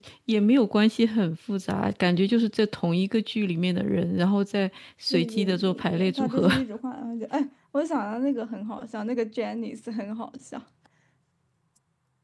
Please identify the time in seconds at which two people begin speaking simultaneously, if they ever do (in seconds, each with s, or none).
5.1 s